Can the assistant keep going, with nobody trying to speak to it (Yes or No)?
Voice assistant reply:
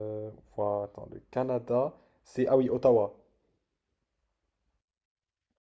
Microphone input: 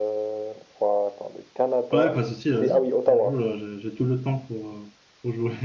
No